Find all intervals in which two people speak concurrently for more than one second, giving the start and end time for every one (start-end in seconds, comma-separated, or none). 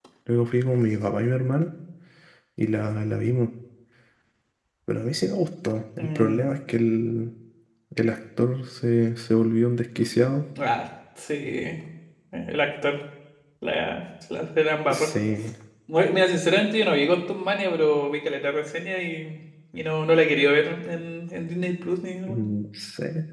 none